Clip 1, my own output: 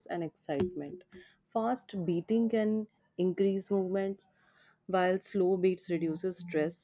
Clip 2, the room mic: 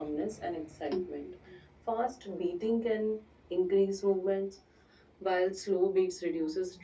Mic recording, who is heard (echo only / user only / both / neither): echo only